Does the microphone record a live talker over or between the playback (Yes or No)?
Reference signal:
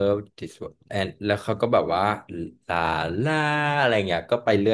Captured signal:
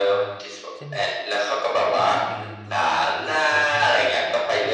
Yes